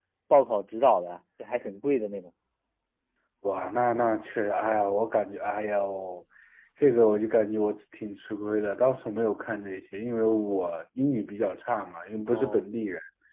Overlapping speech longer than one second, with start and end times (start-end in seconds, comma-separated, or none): none